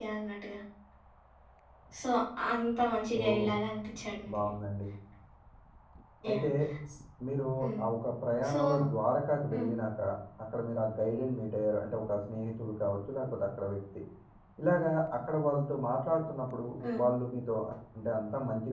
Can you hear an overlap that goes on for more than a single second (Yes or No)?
No